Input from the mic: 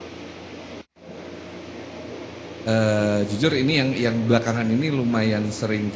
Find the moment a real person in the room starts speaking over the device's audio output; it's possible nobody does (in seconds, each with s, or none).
2.6 s